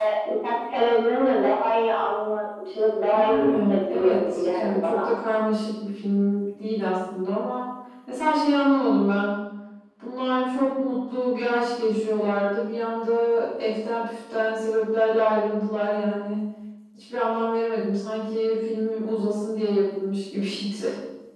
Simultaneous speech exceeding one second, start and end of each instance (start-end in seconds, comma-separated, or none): 3.1-5.1